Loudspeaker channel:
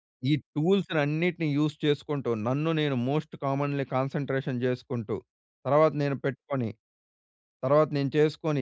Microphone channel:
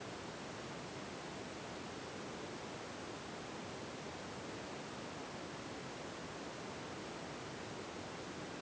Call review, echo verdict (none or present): none